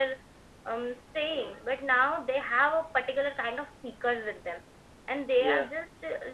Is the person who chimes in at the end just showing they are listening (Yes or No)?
Yes